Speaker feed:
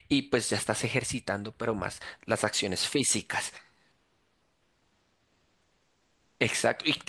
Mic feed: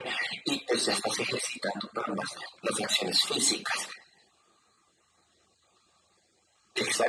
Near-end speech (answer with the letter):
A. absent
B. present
A